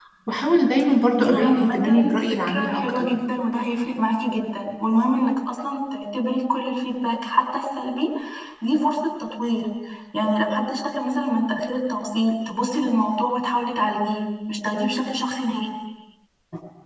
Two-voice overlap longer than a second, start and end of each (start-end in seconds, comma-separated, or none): 1.2-3.1